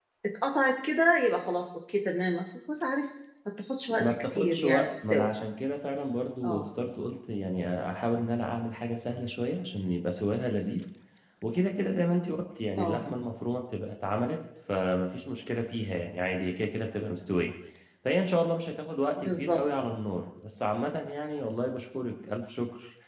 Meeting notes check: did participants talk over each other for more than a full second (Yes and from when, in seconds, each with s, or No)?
Yes, from 4.0 s